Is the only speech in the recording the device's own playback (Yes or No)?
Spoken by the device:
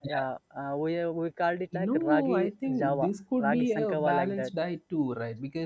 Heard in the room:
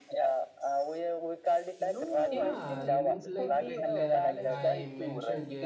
No